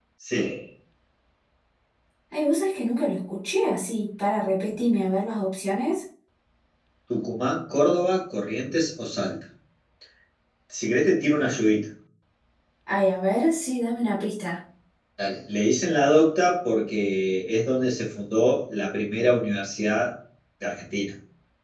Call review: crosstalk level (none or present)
none